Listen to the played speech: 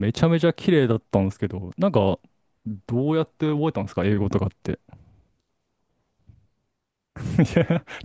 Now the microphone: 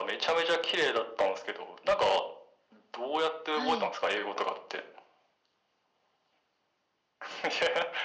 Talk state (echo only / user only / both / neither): both